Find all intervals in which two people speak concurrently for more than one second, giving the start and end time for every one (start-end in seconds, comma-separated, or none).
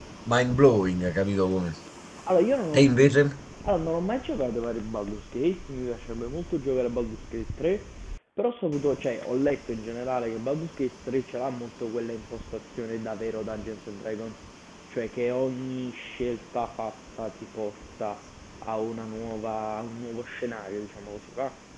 none